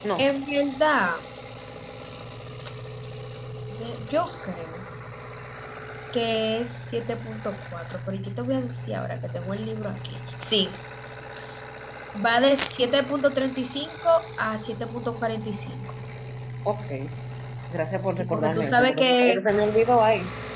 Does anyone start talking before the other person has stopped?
Yes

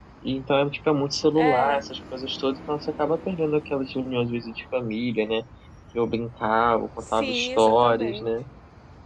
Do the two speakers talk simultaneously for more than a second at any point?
Yes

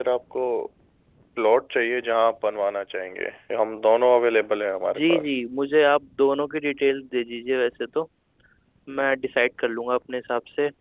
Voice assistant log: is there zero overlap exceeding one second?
Yes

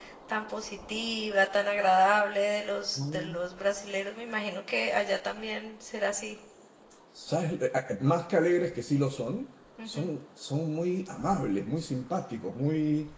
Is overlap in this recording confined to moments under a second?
Yes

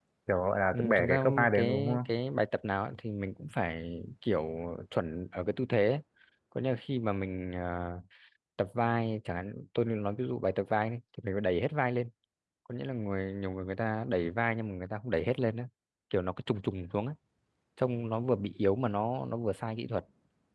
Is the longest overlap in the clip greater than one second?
Yes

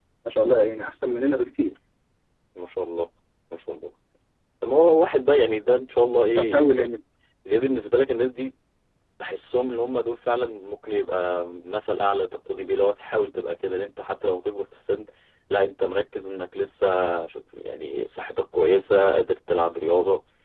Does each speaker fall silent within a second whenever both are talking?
Yes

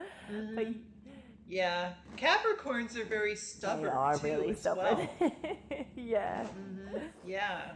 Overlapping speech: Yes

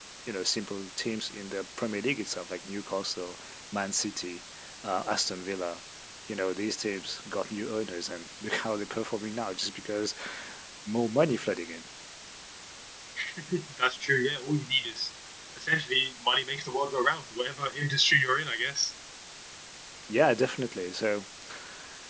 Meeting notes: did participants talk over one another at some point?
No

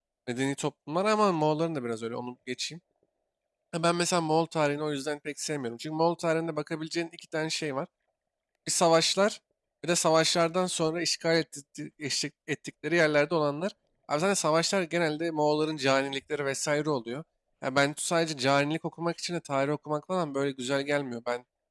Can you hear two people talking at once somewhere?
No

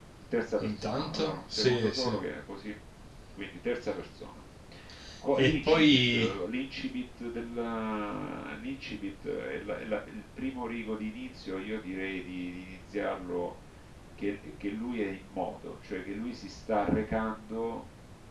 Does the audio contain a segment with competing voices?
Yes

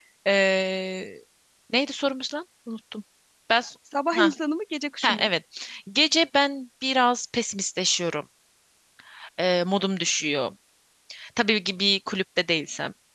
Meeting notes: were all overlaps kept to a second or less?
Yes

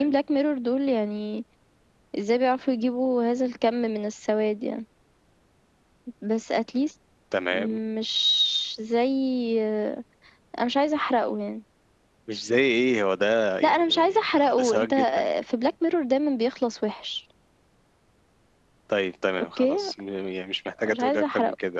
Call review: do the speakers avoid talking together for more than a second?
No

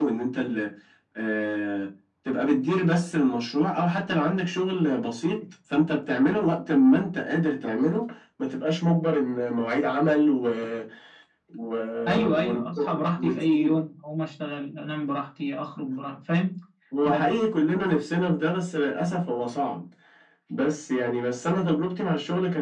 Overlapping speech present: Yes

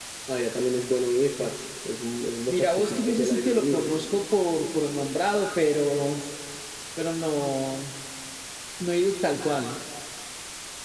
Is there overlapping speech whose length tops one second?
Yes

